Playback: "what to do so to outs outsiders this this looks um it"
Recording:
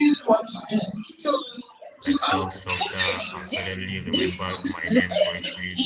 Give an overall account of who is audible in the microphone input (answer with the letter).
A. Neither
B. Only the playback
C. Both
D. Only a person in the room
C